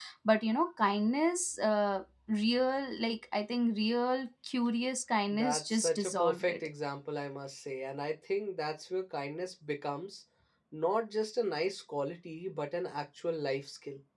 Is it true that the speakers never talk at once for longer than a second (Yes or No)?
No